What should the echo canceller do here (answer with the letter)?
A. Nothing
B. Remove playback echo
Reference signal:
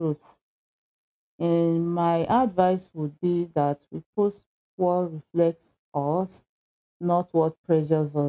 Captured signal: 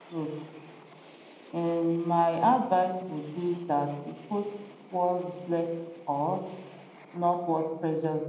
B